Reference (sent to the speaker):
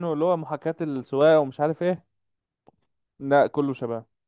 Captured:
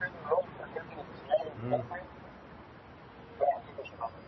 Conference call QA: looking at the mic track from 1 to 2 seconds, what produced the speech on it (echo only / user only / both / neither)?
both